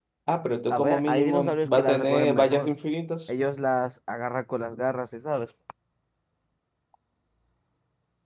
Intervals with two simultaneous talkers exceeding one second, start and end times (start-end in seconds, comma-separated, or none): 0.7-2.7